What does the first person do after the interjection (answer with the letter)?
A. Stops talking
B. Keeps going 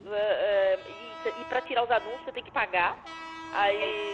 B